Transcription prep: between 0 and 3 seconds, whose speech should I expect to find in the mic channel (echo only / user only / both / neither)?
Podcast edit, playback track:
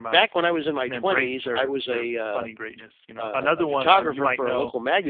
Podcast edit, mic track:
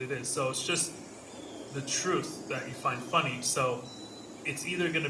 user only